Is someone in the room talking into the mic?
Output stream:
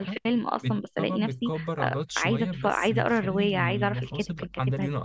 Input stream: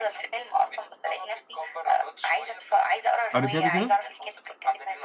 Yes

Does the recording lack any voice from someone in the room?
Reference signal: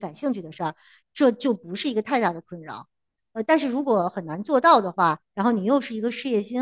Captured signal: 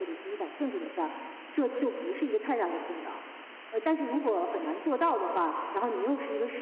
Yes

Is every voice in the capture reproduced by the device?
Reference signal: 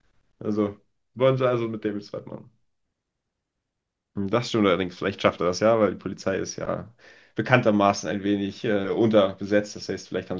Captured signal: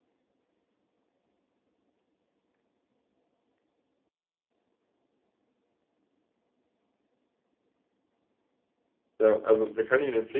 No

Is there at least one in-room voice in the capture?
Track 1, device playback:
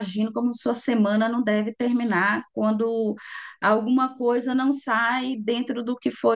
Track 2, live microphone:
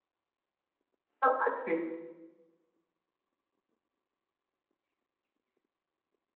Yes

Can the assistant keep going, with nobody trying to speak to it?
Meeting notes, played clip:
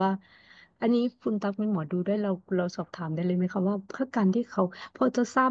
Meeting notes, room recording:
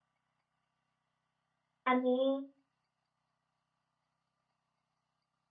No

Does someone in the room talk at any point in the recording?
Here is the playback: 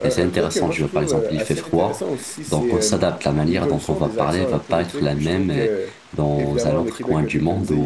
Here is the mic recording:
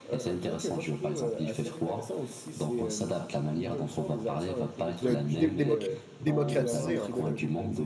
Yes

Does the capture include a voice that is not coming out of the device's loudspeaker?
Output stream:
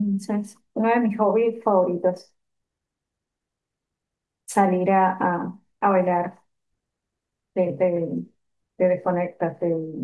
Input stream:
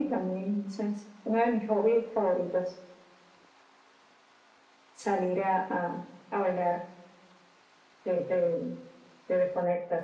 No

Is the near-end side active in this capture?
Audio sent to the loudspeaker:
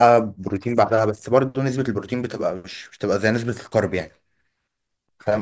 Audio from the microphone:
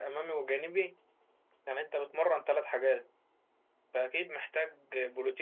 Yes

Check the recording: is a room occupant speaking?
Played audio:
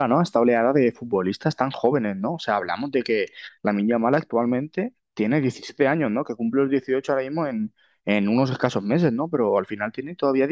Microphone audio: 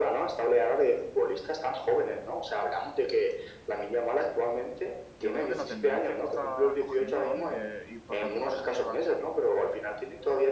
Yes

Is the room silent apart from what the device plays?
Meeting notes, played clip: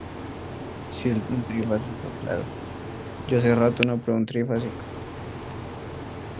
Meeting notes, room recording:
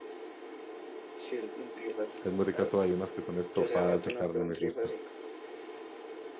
No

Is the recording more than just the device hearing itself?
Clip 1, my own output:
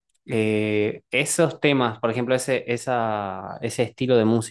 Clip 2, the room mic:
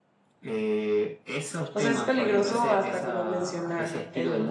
Yes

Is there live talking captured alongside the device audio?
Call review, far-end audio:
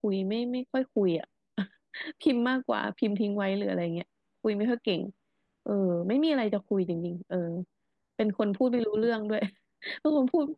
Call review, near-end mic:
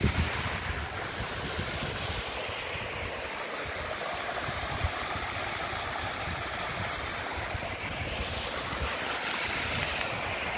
No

